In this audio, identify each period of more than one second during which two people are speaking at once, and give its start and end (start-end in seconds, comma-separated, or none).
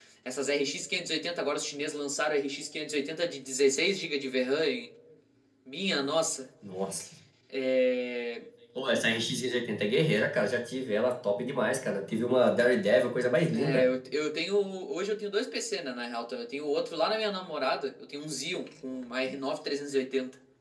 none